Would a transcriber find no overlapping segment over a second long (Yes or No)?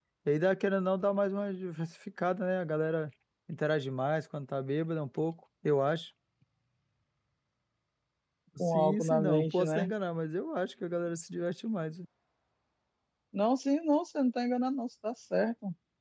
No